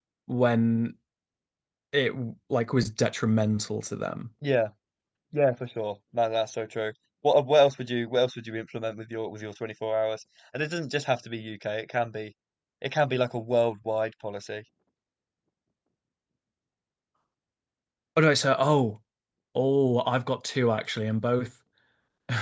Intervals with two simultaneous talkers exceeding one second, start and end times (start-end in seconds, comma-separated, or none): none